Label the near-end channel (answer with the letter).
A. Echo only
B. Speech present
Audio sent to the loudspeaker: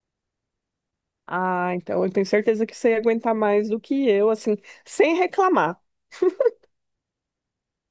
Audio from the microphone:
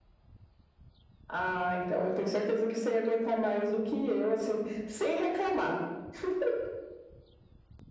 A